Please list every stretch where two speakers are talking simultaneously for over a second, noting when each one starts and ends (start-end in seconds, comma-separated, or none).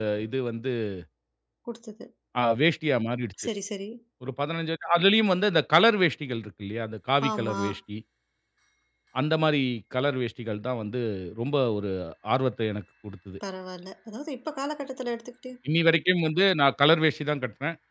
none